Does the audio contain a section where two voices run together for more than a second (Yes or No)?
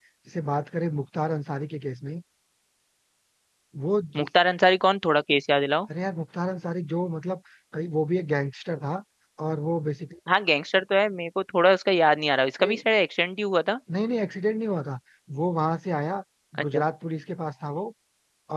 No